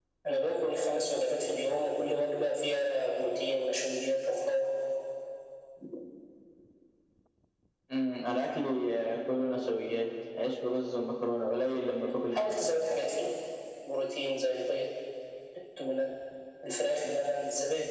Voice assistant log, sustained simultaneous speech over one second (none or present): none